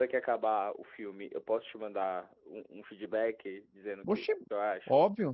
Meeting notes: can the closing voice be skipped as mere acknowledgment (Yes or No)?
No